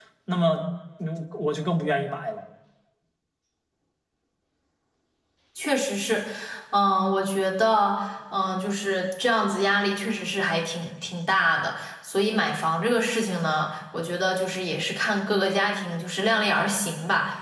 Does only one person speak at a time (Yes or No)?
Yes